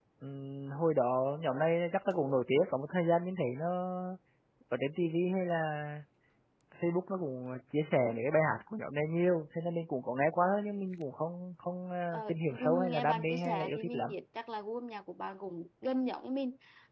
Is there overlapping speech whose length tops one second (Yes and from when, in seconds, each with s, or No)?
Yes, from 12.1 s